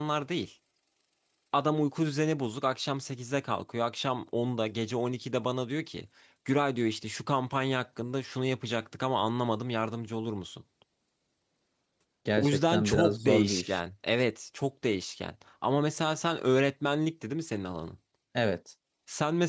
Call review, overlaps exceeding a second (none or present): present